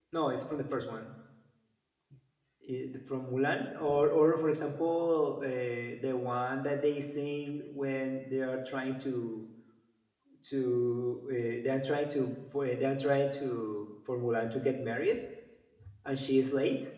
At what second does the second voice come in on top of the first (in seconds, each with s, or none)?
none